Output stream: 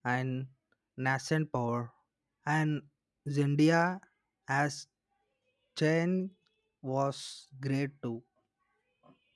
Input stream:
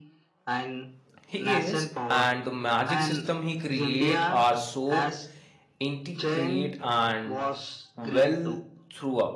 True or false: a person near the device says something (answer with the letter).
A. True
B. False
A